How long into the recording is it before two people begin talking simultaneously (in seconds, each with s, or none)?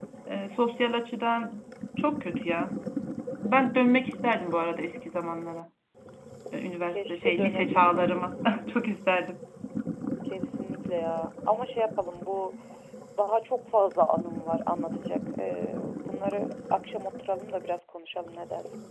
6.9 s